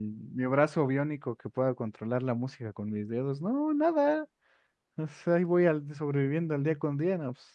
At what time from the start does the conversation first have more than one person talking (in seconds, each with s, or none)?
none